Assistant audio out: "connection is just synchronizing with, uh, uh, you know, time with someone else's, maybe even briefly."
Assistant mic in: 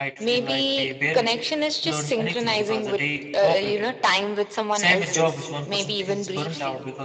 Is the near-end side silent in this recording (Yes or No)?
No